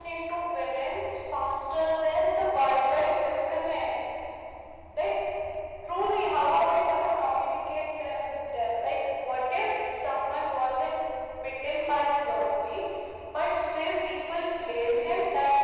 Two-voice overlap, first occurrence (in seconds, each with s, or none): none